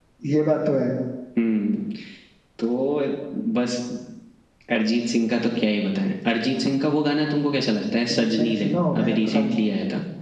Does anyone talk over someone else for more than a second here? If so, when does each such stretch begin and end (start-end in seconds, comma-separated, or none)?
8.1-9.6